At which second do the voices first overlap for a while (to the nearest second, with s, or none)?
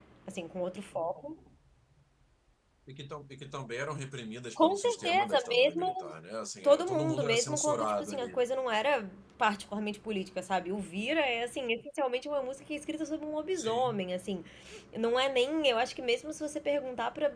5 s